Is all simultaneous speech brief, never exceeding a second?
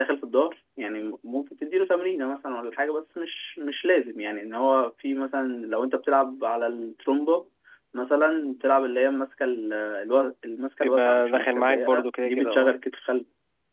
No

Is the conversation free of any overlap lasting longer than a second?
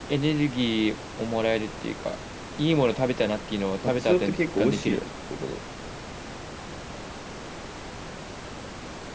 No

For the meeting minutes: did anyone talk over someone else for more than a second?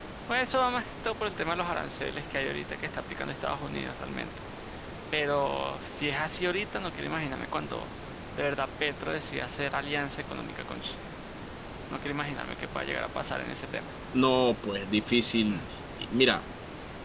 No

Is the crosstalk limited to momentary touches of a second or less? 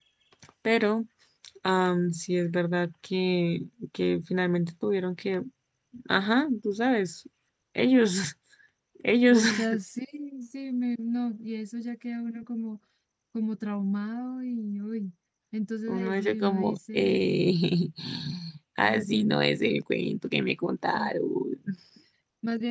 No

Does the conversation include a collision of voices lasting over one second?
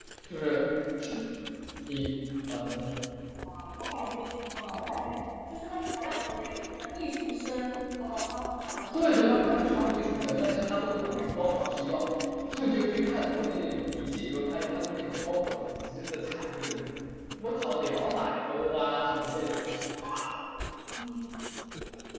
Yes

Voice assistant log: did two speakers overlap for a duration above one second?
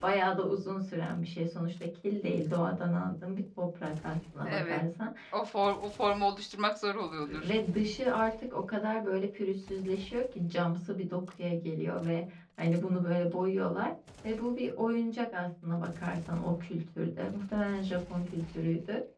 No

